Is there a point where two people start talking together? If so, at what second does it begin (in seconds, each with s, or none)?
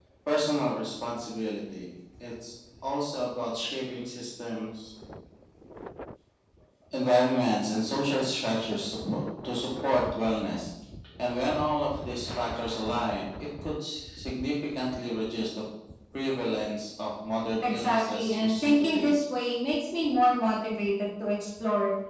17.6 s